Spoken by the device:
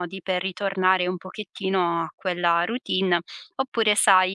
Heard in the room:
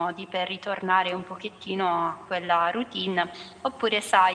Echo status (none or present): present